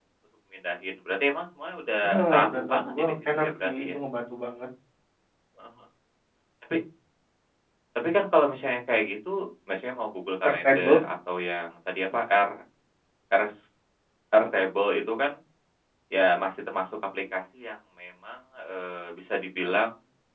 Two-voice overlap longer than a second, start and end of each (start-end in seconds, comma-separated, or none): 2.0-4.0